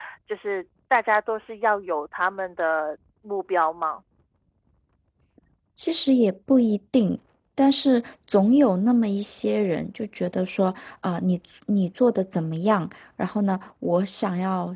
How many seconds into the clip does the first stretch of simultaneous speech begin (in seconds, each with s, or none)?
none